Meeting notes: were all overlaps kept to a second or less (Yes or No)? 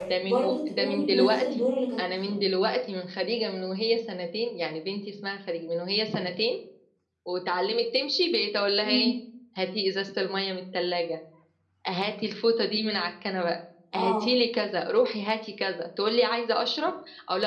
No